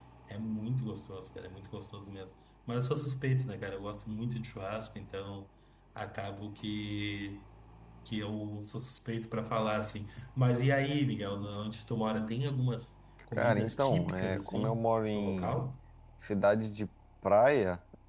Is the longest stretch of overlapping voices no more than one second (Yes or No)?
No